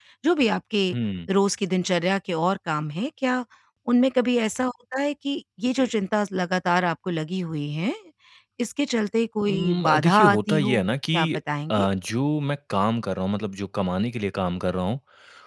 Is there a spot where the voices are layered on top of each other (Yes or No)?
Yes